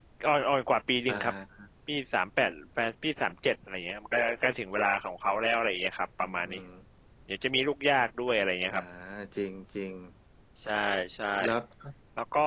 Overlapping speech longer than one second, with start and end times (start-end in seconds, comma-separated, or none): none